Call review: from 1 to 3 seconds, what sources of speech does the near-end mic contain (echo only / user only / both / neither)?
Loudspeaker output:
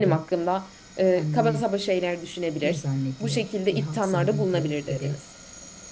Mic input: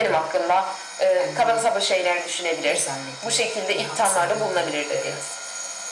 echo only